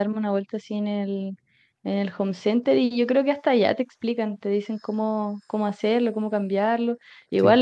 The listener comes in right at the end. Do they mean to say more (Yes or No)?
No